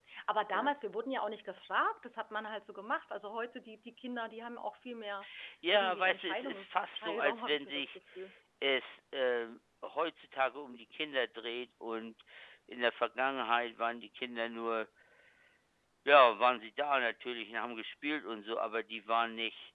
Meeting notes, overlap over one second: present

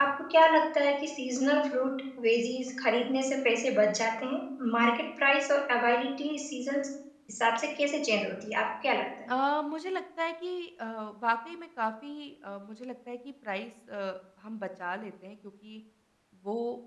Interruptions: none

